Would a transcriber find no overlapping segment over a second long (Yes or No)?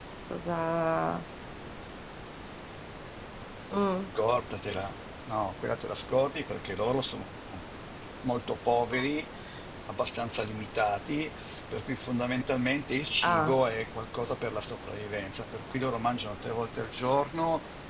Yes